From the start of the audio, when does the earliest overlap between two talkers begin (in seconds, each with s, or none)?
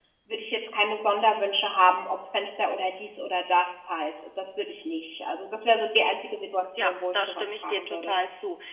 6.8 s